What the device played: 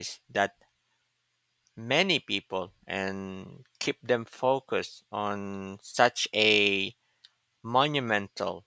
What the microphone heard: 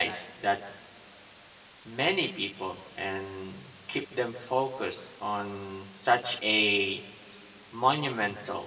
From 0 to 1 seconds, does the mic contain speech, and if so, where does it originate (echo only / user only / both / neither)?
echo only